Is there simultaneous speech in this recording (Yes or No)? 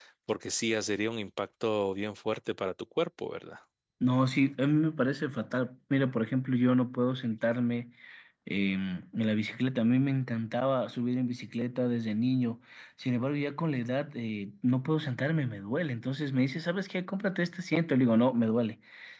No